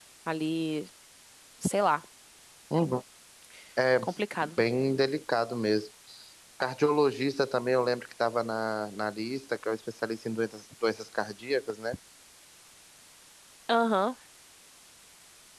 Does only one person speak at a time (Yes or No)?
Yes